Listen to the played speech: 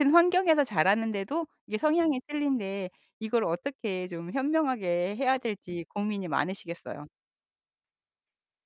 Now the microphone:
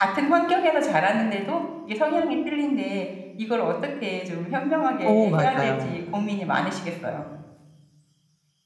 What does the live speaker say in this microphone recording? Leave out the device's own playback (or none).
어 맞아요.